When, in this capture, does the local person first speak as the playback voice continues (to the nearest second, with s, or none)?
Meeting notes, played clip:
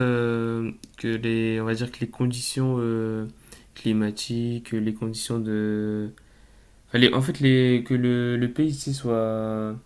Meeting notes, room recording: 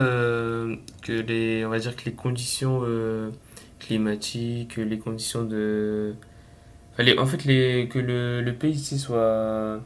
none